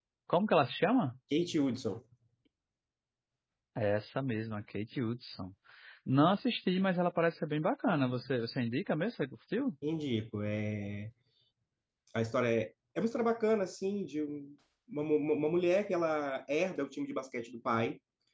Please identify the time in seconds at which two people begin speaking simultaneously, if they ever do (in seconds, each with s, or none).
none